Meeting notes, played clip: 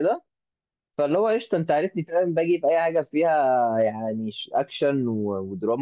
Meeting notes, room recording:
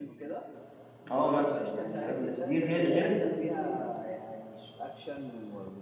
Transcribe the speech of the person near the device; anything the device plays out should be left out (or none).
اه مثلا يعني فاهم بس دي غير غير التلفزيون يعني